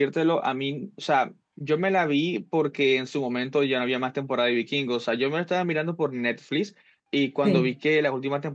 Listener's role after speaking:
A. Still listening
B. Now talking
A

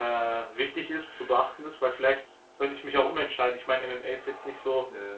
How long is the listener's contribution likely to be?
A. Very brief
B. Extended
A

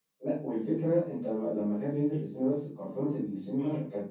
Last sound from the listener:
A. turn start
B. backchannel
B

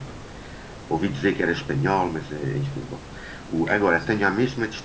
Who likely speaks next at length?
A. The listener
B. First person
B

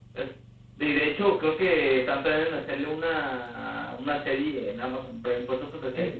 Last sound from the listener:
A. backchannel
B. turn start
B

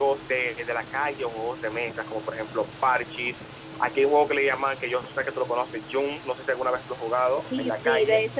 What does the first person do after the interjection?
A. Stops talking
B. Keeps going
A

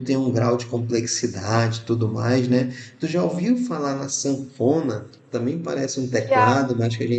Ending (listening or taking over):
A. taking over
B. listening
B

